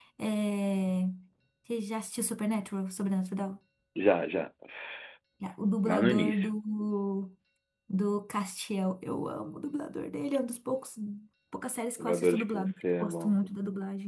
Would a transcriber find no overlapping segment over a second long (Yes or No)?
No